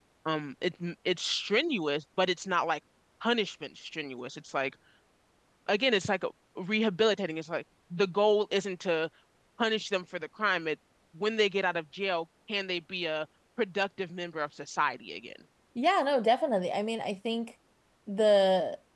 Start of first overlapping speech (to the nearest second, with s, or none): none